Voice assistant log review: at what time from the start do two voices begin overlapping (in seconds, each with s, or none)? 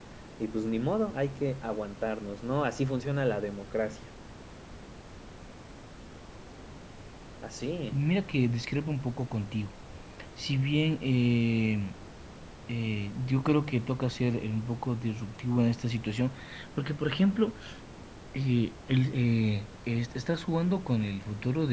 none